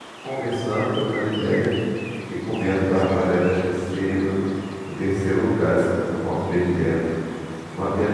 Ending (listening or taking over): listening